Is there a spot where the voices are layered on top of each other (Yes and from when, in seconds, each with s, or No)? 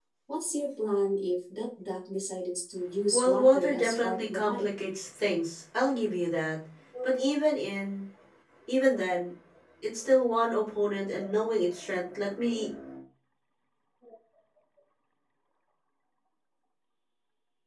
Yes, from 3.1 s